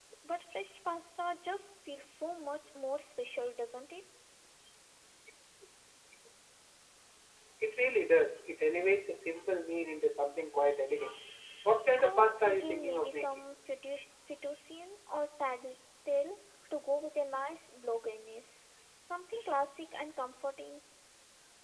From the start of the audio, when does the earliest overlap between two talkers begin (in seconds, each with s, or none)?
12.0 s